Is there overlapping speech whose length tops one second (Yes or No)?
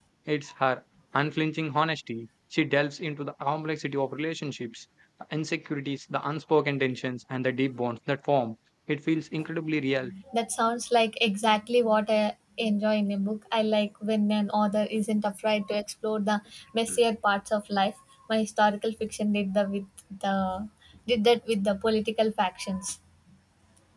No